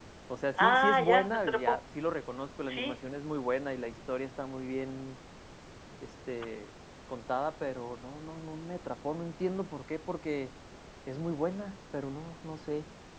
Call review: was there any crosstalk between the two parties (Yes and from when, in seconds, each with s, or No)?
Yes, from 0.6 s